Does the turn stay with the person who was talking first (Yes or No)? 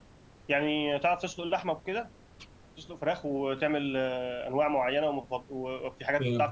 No